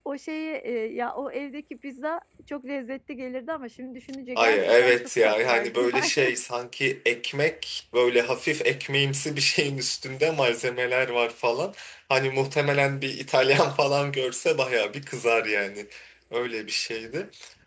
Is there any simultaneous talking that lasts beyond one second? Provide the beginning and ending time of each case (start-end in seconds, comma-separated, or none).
4.4-6.3